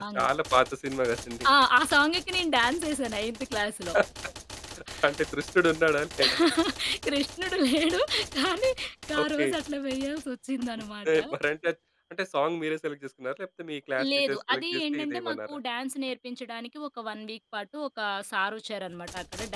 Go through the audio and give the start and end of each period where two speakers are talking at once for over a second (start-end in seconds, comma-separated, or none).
14.3-15.6